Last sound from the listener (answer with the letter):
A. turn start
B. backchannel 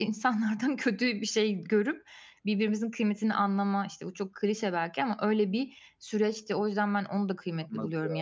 B